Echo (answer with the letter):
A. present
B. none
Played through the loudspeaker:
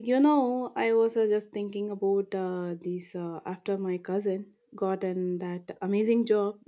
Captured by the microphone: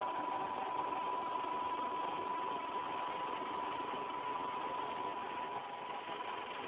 B